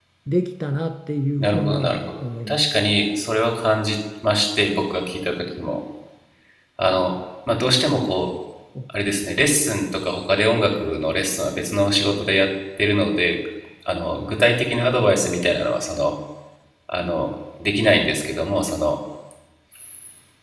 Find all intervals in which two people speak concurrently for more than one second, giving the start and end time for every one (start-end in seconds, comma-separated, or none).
1.4-2.6